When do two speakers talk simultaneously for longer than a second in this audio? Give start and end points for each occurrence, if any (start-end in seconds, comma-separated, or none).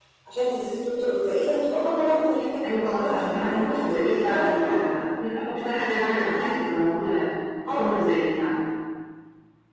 2.8-4.6